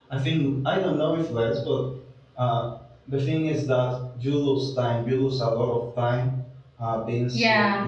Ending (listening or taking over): listening